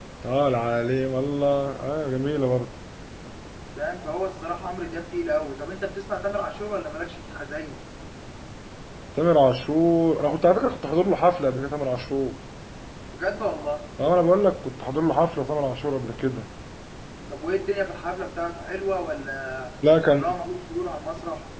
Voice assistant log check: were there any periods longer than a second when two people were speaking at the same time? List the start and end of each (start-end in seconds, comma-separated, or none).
none